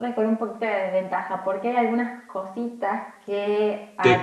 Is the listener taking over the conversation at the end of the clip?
No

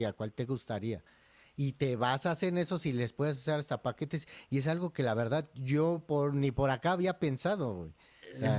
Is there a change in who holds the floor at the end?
Yes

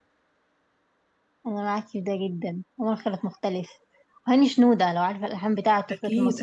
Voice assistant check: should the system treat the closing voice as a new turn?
Yes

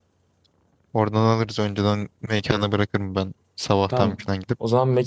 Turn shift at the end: Yes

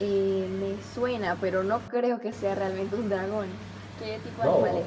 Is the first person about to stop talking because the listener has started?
Yes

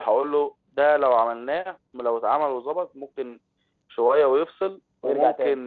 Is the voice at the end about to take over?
No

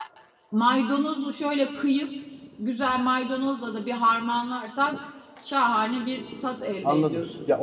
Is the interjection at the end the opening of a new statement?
Yes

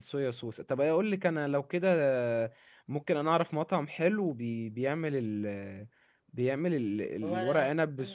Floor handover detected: No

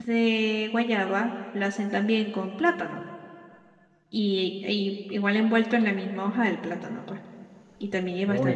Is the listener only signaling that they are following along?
No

